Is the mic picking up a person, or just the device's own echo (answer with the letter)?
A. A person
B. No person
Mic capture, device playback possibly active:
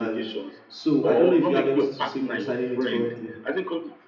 A